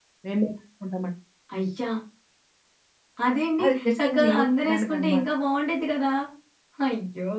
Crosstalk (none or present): present